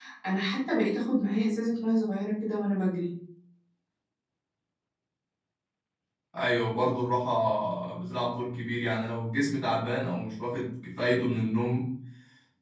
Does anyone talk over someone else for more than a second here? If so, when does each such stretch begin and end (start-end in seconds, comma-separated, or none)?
none